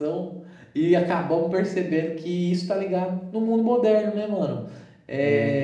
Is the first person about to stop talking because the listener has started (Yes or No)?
No